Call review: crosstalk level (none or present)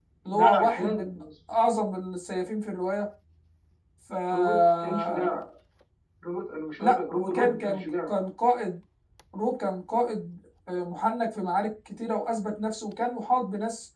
present